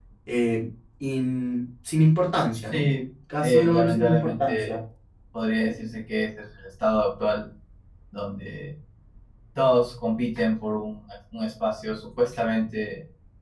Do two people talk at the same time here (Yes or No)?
Yes